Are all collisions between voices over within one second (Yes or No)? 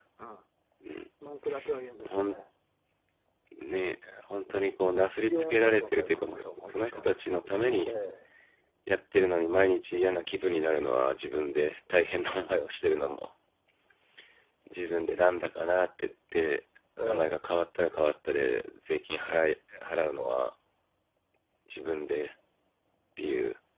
No